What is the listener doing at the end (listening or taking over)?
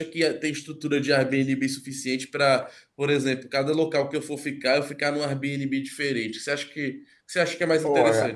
taking over